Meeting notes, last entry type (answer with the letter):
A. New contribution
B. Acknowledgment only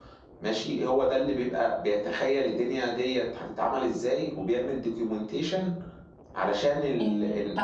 A